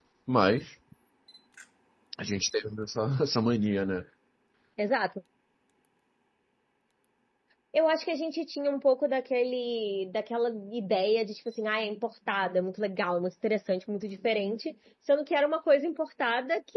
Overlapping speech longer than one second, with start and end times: none

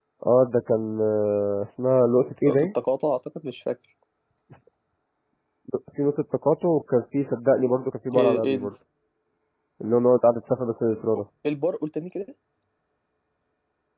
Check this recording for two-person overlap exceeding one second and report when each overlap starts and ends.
none

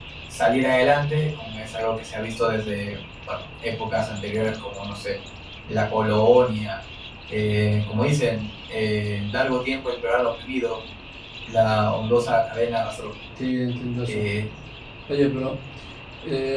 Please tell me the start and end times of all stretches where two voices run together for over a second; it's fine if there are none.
none

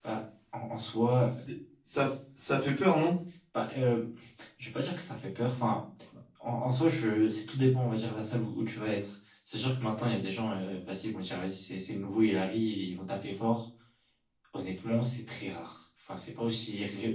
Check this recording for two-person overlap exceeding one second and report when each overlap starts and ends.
none

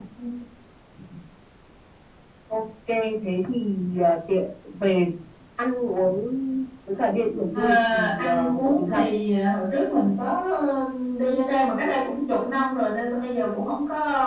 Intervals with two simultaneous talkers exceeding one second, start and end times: 7.5-9.0

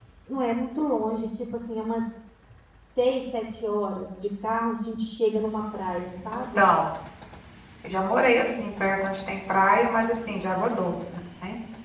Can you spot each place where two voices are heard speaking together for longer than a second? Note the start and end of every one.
none

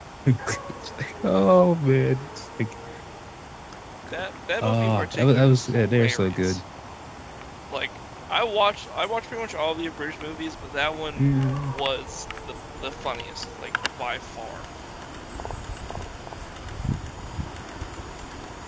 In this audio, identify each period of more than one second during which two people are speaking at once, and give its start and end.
4.6-6.6

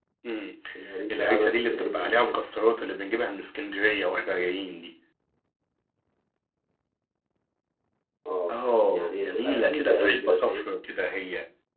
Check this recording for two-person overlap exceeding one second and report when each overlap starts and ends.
1.1-2.4, 8.5-10.7

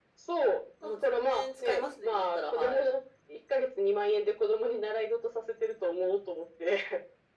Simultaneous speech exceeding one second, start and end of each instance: 0.8-2.9

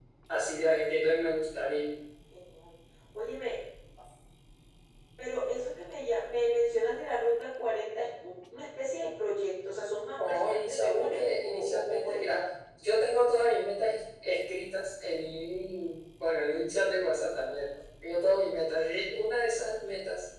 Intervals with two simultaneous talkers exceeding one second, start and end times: 10.3-12.3

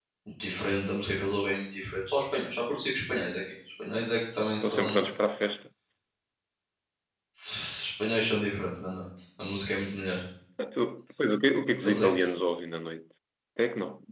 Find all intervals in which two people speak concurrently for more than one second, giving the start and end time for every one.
none

